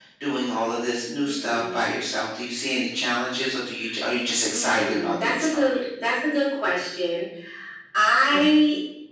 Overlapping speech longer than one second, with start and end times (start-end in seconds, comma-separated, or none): 4.5-5.8